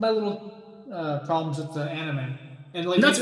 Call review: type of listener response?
listening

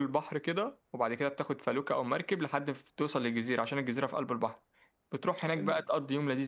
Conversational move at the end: listening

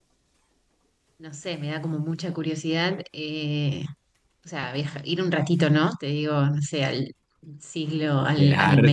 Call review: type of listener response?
taking over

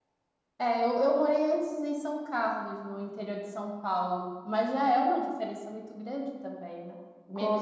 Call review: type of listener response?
listening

